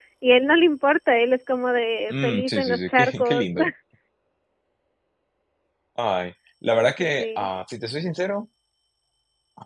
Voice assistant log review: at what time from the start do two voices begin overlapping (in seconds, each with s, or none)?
2.1 s